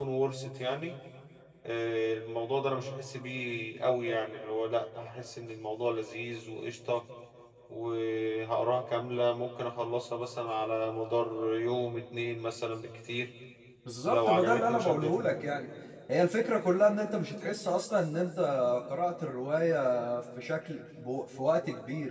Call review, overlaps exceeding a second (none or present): present